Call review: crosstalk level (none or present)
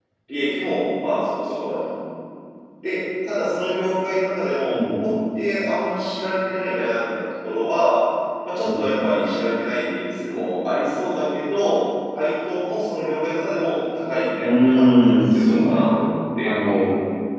present